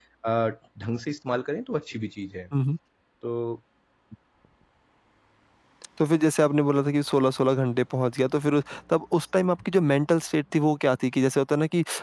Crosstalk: none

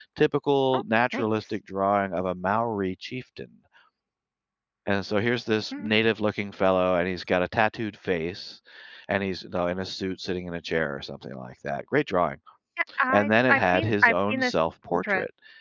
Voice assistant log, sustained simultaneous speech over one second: present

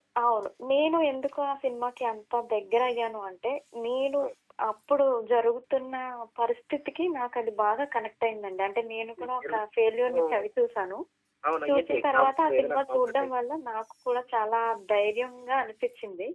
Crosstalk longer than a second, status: present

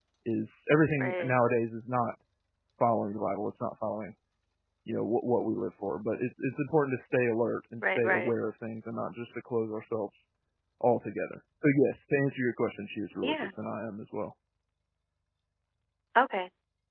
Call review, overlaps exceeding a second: none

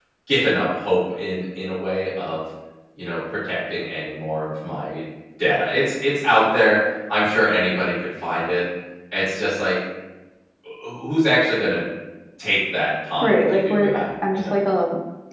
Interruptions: present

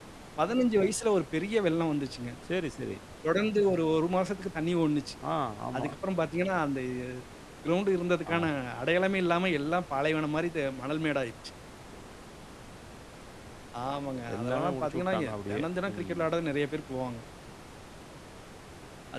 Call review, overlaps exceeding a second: present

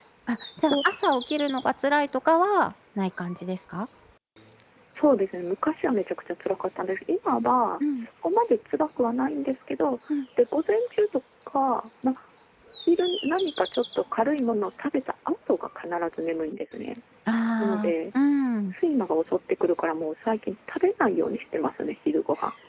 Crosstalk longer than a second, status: none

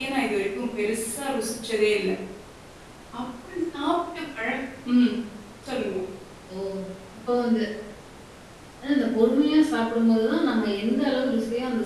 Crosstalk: none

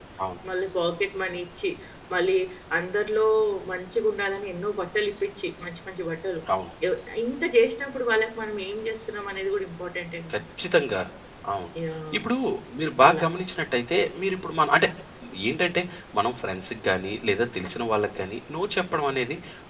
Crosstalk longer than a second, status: none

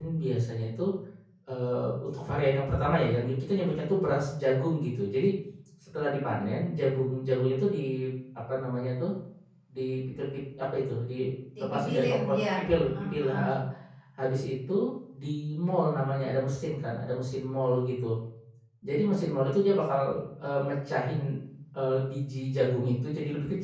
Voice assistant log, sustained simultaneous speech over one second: present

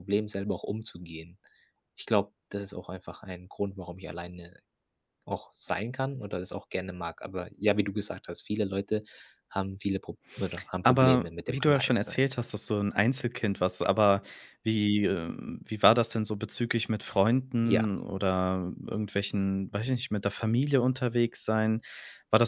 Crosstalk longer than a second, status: present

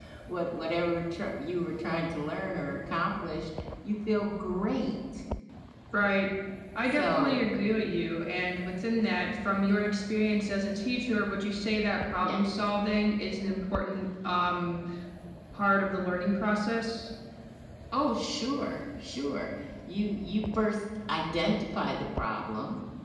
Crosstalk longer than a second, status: none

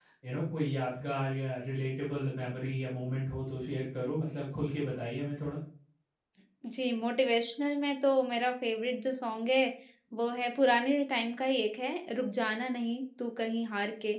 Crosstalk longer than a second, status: none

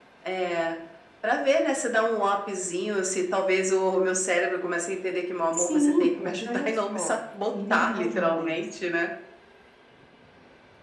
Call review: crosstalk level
present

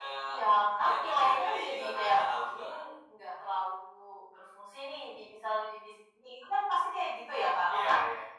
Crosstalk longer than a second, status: present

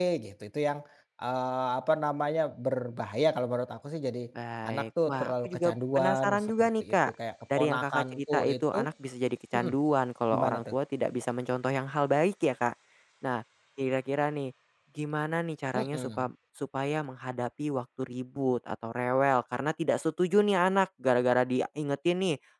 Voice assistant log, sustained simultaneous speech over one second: present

